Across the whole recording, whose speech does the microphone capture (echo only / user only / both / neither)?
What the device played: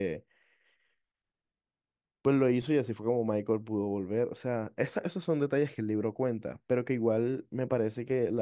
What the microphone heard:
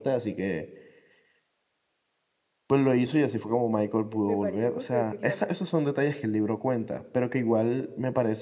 both